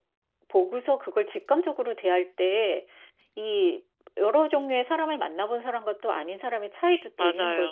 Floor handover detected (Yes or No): Yes